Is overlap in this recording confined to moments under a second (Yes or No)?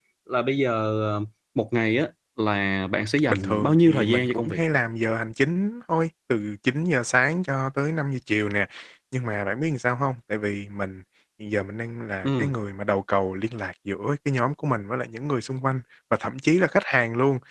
No